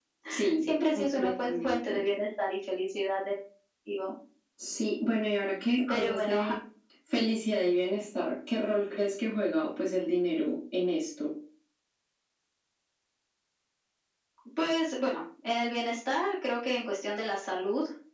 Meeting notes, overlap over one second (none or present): present